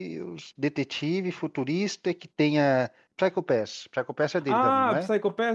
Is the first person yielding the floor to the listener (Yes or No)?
Yes